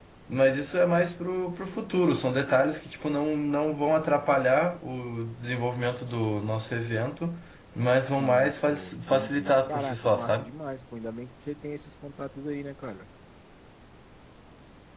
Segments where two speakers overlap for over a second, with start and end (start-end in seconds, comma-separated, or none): 8.1-10.5